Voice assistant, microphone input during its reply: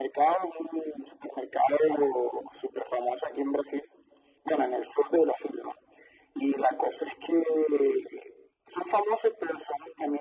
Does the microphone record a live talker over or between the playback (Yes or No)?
No